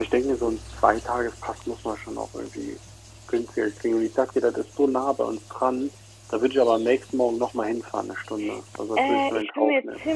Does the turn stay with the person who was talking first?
No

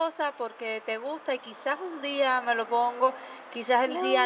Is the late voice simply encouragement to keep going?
Yes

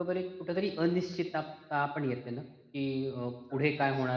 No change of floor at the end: Yes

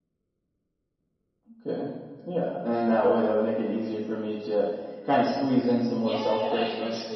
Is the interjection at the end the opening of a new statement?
Yes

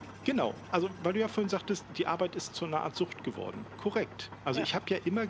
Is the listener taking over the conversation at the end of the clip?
No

